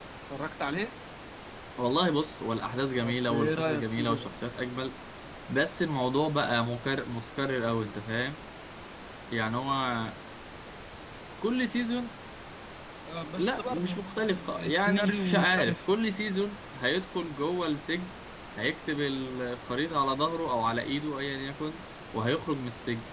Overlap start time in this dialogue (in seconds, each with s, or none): 3.0 s